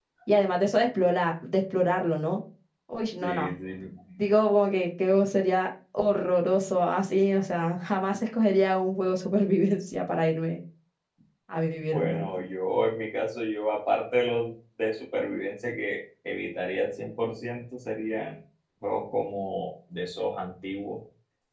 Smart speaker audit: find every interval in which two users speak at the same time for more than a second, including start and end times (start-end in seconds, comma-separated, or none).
none